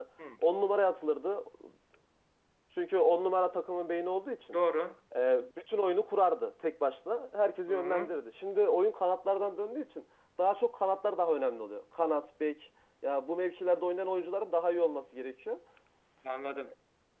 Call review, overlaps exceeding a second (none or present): none